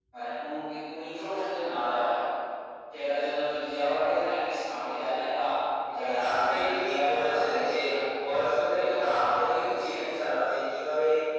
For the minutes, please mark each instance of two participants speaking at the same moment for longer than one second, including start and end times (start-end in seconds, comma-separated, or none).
6.0-7.7, 8.8-10.0